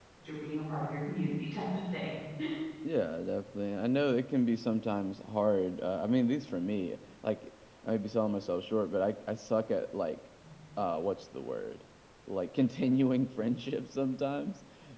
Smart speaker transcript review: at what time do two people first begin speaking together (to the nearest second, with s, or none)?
none